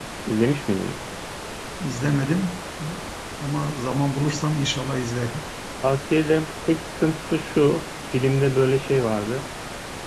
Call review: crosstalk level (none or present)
none